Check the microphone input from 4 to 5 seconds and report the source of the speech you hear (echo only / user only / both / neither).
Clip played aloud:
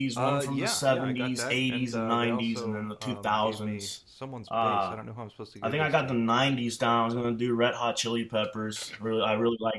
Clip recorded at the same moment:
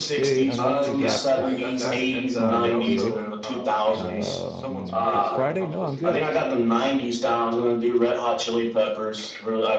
both